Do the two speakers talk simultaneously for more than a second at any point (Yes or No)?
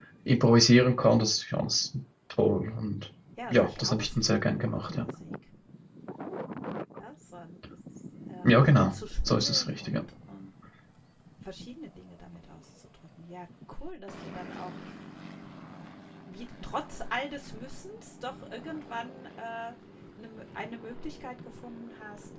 Yes